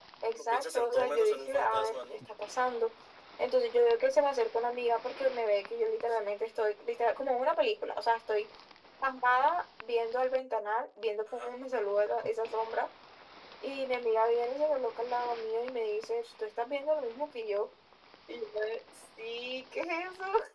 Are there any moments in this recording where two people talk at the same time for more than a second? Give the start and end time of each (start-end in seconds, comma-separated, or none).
0.5-2.0